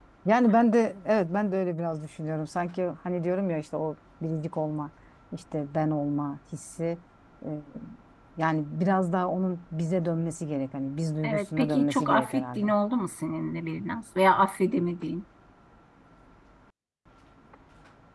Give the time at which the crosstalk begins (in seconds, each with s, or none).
11.2 s